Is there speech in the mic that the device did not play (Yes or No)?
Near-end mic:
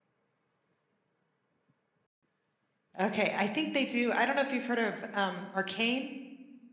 Yes